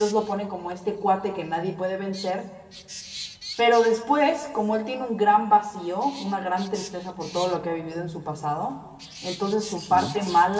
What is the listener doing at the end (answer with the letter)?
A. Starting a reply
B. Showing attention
B